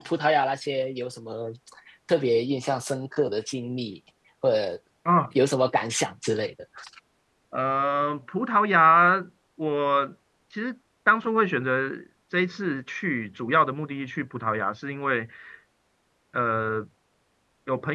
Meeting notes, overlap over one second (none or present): none